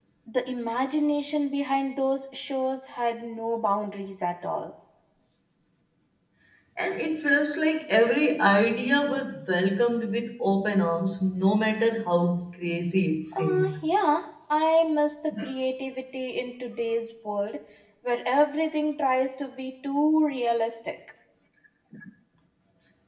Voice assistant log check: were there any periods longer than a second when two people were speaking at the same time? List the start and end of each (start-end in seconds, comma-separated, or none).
none